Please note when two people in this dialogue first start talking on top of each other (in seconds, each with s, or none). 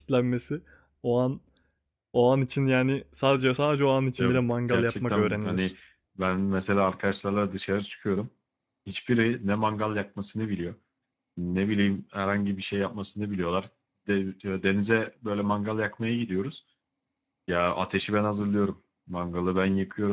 4.2 s